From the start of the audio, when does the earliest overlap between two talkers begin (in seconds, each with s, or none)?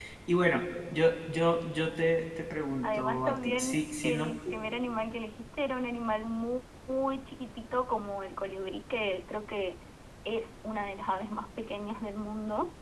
2.8 s